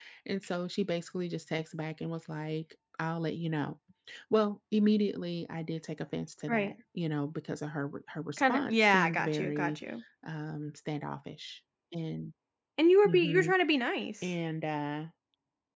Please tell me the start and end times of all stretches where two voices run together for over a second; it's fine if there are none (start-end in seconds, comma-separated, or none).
8.4-9.8